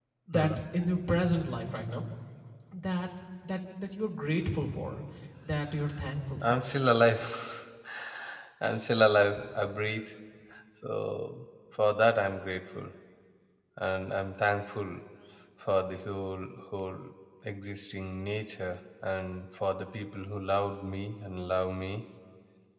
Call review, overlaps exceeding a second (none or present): none